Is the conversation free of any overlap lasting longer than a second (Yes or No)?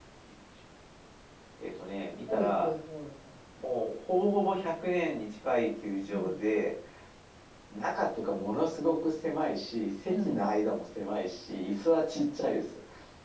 Yes